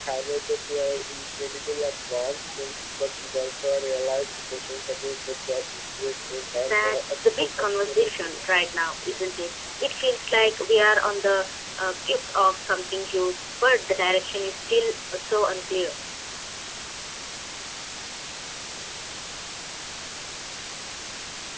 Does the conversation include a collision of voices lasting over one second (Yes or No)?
Yes